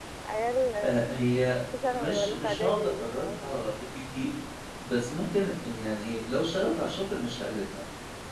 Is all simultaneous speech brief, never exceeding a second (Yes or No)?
No